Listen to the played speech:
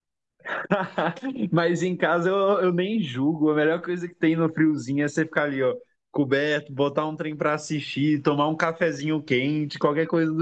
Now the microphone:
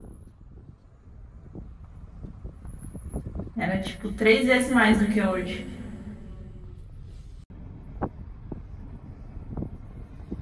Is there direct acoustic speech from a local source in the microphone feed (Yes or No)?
Yes